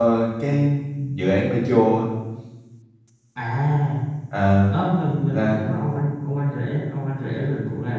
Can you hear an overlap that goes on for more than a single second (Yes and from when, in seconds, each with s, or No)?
No